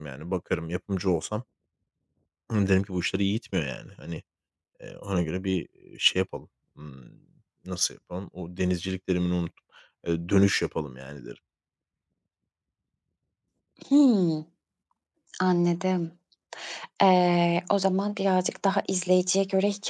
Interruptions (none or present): none